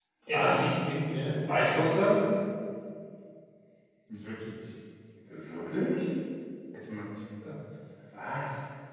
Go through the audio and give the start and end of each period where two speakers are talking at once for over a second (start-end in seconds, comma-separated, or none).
none